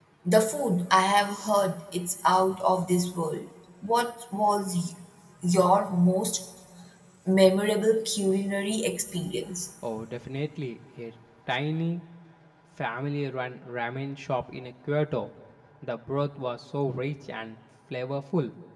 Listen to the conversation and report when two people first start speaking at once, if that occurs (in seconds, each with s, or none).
none